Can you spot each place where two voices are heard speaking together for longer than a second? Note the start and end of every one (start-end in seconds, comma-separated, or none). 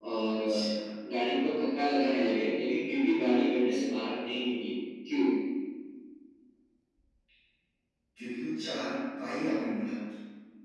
none